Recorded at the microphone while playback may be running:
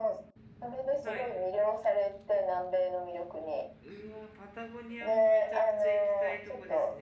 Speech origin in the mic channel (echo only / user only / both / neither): both